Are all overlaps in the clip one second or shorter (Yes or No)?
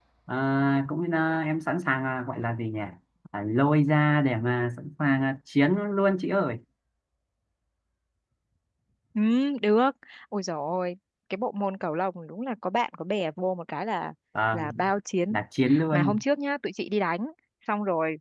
Yes